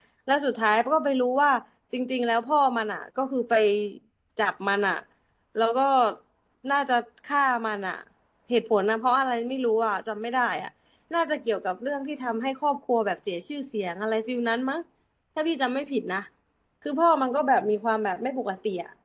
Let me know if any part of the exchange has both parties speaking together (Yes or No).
No